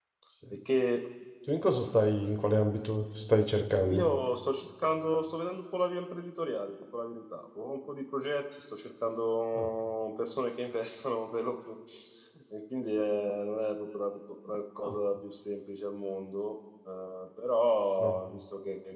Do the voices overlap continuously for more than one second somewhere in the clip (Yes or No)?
No